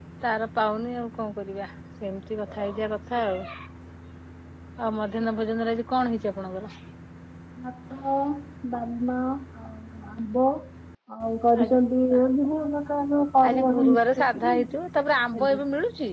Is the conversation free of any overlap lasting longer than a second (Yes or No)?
No